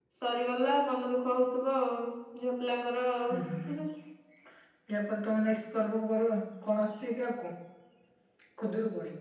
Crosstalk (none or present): none